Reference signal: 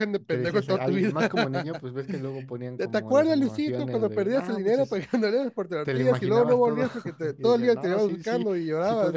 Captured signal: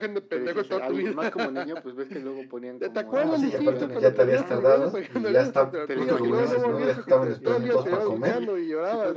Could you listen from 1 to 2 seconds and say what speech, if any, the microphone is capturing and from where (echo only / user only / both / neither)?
echo only